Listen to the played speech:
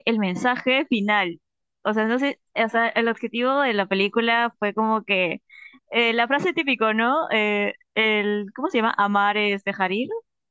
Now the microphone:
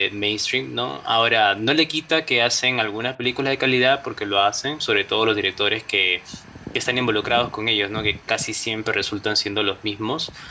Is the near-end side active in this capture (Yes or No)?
Yes